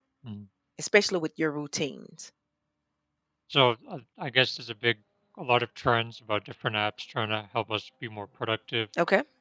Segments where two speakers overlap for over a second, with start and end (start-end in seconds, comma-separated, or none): none